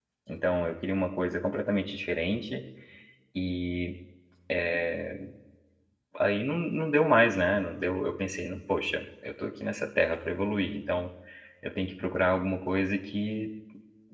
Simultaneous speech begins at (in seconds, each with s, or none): none